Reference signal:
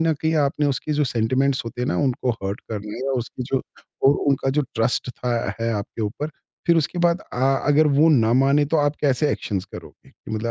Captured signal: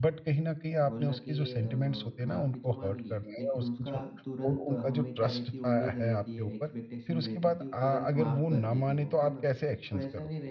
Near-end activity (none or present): present